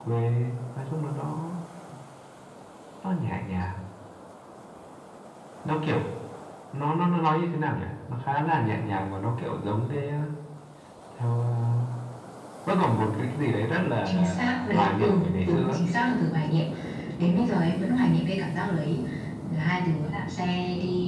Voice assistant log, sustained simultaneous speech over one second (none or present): present